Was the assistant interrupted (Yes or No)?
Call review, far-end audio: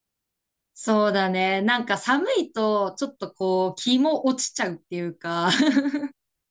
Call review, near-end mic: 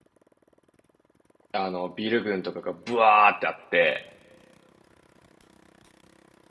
Yes